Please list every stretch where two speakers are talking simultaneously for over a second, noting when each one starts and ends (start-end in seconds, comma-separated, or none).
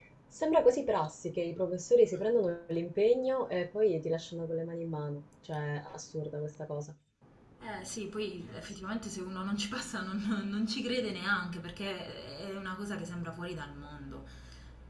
none